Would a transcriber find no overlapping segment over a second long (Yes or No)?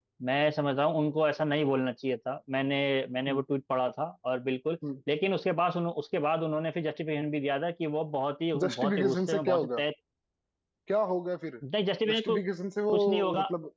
No